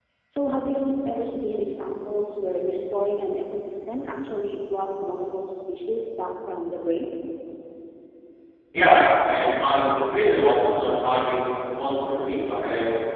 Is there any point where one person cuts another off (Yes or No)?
No